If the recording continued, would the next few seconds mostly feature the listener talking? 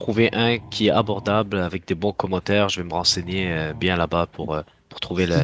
Yes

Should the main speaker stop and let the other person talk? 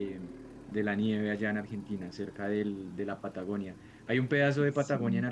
No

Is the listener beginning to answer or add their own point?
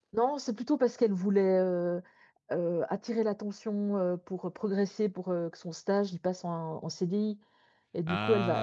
No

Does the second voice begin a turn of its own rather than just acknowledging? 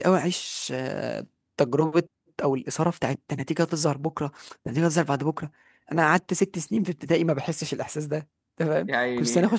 No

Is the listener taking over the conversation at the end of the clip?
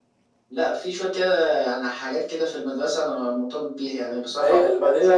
Yes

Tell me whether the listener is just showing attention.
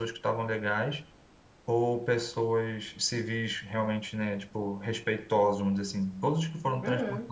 Yes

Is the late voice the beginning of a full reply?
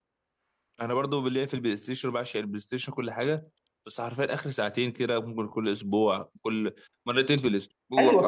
Yes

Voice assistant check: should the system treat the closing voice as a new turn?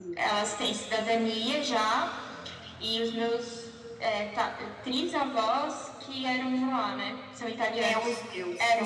Yes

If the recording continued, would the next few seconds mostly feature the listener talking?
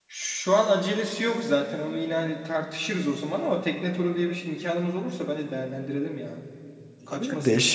Yes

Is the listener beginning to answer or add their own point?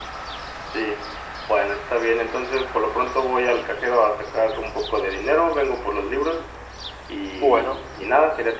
No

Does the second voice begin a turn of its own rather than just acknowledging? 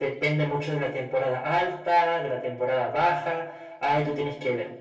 No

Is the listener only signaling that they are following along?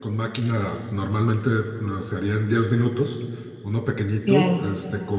Yes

